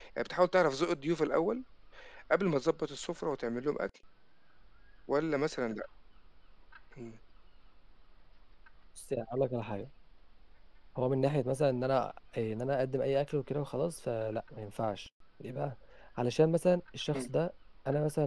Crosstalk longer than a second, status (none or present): none